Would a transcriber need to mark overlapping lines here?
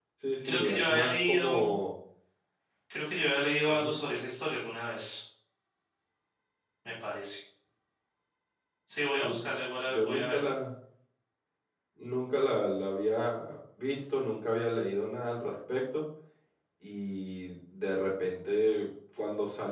Yes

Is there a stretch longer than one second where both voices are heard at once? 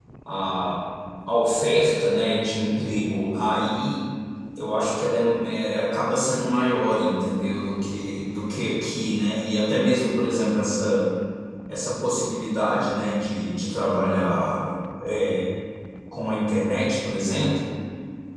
No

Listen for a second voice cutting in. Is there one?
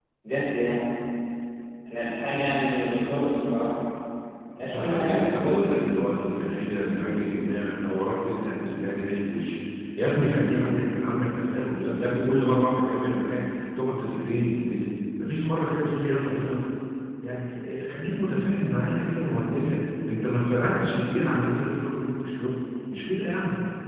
Yes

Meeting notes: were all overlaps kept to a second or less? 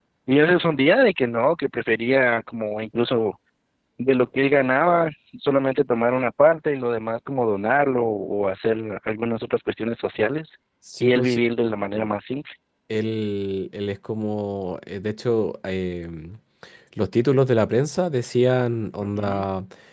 Yes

